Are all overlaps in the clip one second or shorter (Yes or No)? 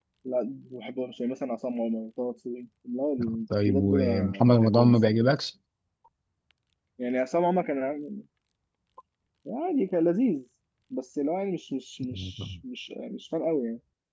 No